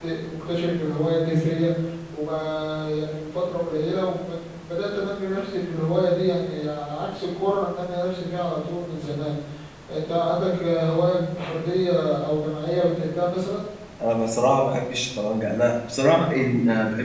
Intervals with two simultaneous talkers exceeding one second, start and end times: none

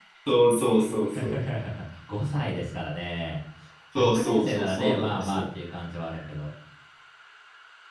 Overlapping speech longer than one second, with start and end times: 4.0-5.4

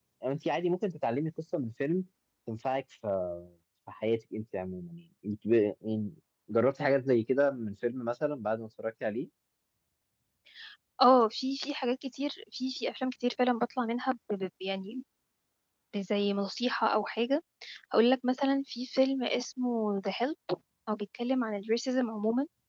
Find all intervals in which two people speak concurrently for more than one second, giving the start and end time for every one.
none

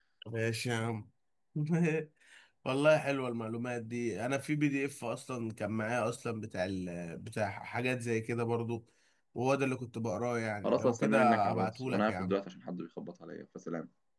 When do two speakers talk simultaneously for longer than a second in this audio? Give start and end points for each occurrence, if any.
10.6-12.3

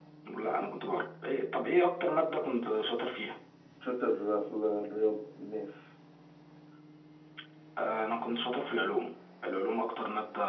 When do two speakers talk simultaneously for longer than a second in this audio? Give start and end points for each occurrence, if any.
none

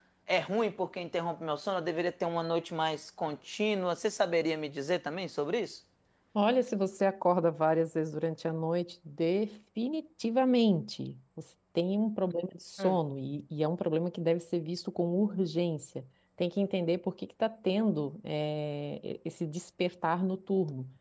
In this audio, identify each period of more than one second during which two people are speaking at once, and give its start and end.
none

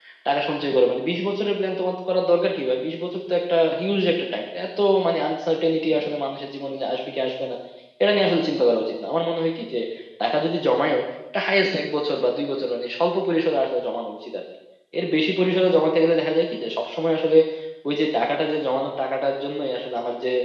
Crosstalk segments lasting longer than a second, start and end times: none

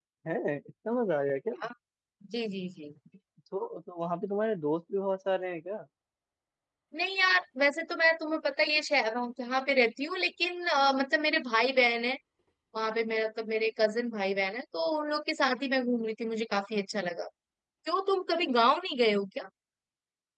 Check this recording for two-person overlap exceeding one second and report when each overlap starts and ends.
none

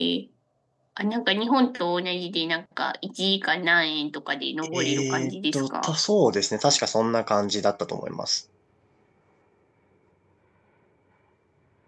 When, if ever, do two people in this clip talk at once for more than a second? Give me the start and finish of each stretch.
4.7-5.9

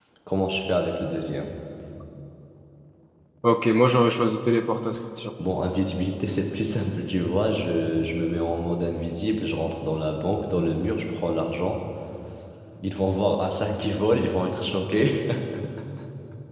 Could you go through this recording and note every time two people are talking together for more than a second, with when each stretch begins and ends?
none

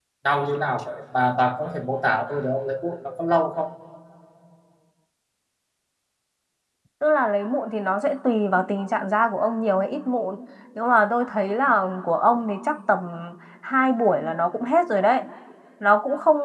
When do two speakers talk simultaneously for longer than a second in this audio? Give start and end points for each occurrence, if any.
none

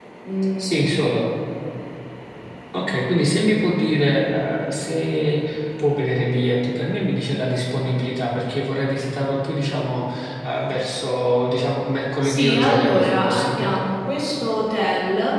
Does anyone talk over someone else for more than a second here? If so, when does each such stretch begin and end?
12.2-13.8

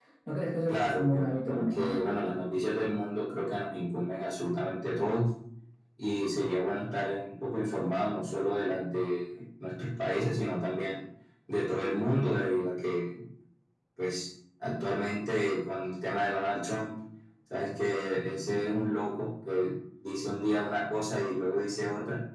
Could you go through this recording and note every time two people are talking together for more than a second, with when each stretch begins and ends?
0.7-2.0

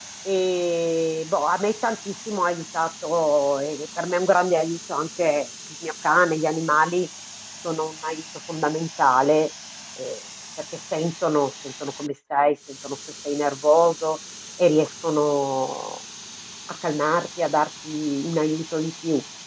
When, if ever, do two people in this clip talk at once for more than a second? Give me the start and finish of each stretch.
none

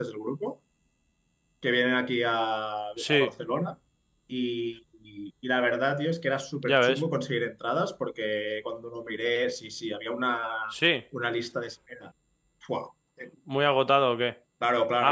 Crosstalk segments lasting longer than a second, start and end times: none

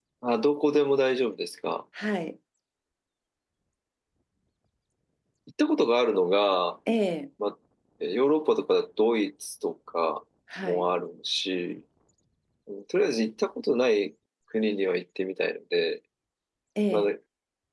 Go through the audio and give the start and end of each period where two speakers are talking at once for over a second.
none

